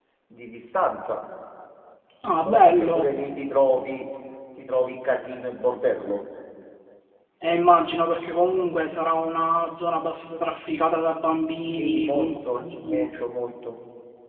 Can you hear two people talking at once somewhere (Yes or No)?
Yes